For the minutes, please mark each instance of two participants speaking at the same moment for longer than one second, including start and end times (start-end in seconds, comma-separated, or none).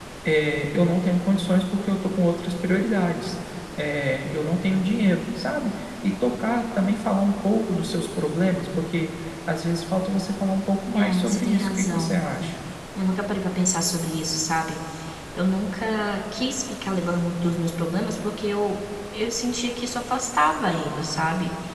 10.9-12.2